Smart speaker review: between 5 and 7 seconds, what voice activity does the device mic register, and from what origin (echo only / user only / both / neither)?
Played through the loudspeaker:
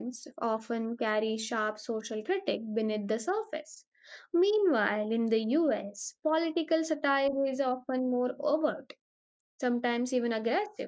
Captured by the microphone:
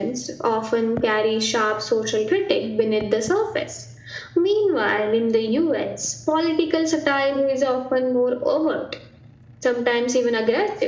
echo only